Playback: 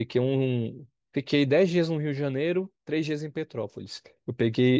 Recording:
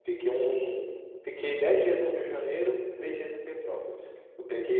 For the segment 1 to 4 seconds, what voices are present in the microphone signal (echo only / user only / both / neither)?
echo only